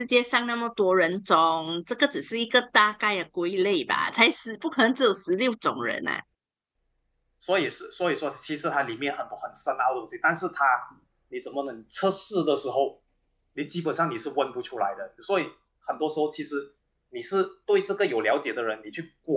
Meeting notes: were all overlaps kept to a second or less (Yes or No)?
Yes